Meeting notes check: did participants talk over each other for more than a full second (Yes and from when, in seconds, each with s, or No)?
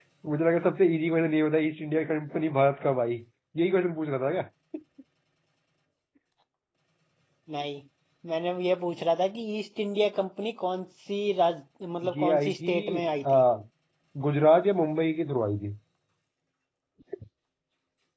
Yes, from 12.0 s